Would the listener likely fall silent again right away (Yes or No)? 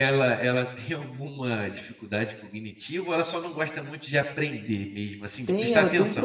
No